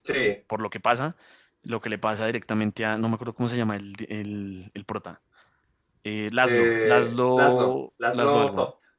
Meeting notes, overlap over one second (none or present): present